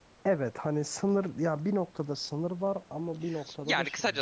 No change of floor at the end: No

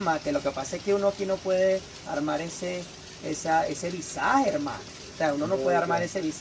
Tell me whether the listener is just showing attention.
Yes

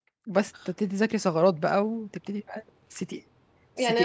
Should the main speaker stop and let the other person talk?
Yes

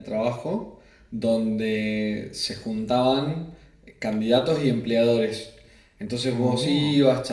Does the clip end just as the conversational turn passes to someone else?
No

